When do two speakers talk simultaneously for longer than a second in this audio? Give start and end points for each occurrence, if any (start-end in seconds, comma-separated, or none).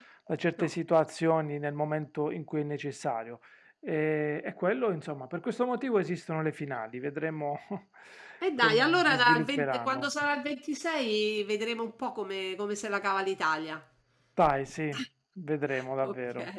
8.6-10.1